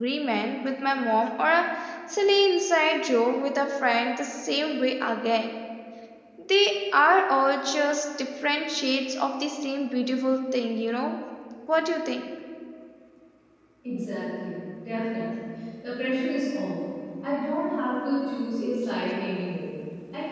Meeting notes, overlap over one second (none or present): none